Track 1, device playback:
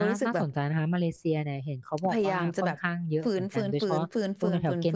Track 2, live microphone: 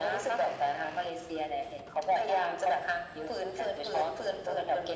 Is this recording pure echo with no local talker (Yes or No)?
Yes